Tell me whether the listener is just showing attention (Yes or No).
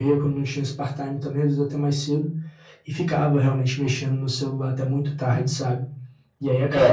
No